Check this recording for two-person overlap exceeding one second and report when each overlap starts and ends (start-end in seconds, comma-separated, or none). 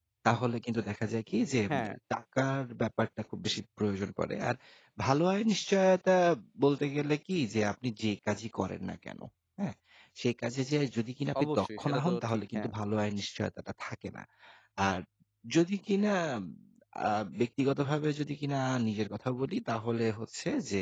11.4-12.7